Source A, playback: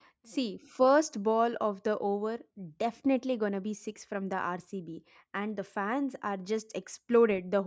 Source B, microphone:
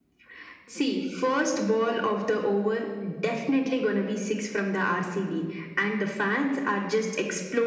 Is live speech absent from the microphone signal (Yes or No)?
Yes